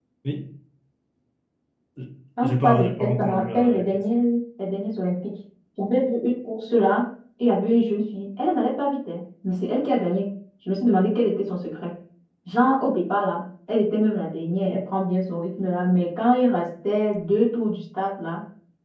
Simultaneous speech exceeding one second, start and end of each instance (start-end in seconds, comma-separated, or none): 2.4-3.8